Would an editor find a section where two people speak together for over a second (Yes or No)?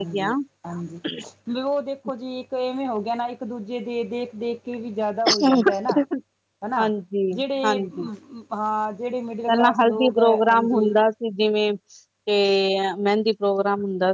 Yes